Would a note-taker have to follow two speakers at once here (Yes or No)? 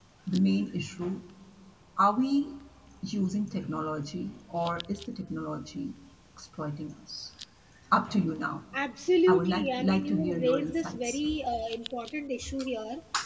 Yes